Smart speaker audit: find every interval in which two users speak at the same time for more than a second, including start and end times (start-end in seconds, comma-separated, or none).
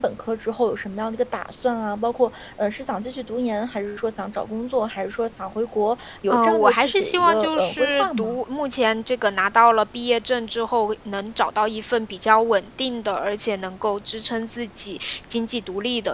6.3-8.4